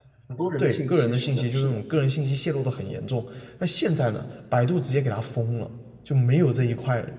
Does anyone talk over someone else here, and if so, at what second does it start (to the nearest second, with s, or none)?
1 s